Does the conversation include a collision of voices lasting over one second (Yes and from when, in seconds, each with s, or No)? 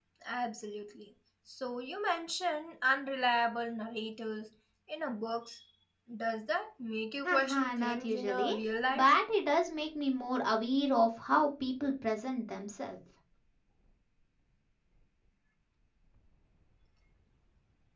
Yes, from 7.2 s